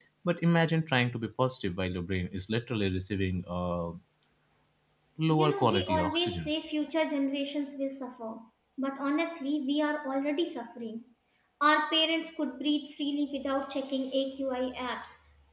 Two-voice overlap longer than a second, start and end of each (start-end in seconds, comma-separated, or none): 5.3-6.5